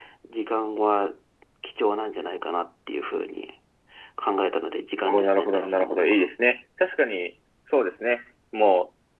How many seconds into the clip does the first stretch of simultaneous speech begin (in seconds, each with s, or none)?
5.1 s